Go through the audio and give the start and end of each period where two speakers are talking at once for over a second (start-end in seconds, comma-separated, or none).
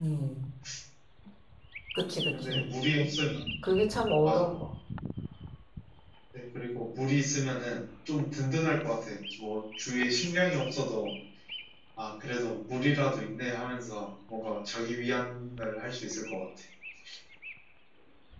none